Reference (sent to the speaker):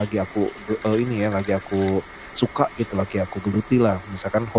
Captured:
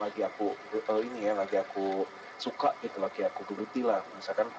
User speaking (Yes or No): No